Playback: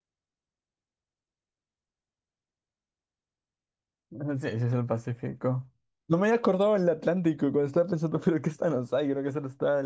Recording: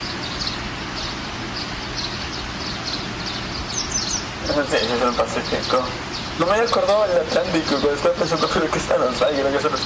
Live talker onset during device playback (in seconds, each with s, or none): none